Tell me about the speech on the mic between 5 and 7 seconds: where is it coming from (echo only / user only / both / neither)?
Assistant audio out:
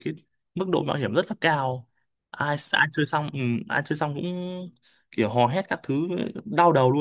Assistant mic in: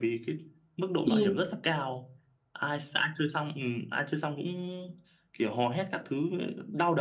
echo only